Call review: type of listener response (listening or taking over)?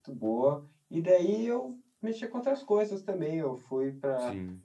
listening